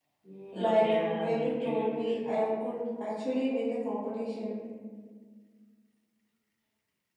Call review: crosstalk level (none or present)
present